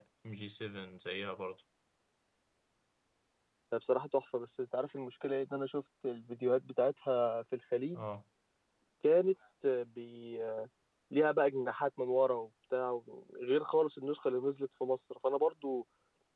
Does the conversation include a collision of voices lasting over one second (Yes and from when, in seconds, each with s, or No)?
No